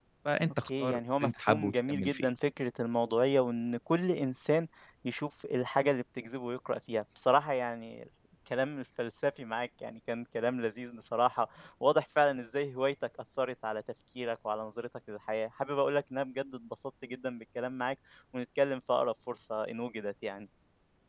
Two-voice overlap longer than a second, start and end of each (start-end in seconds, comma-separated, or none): 0.6-2.3